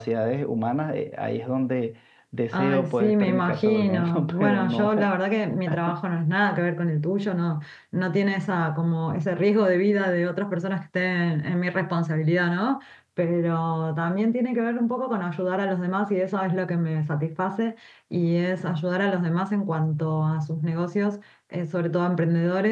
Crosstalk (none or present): present